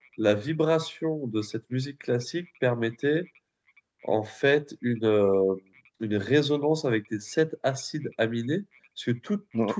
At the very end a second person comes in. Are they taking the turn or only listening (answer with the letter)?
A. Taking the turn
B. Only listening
B